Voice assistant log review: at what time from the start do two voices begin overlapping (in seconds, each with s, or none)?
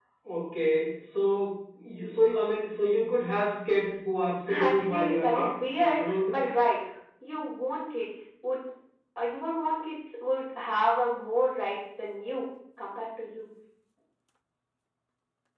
4.5 s